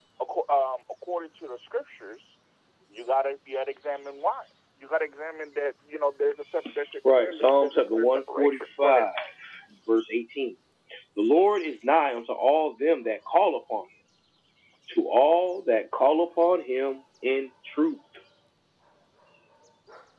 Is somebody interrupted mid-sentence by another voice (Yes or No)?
Yes